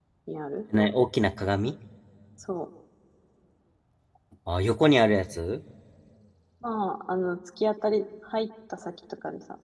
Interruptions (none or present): none